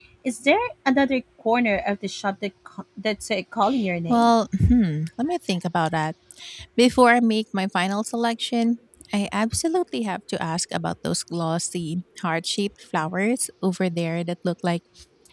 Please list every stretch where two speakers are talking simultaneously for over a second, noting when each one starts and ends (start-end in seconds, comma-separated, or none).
none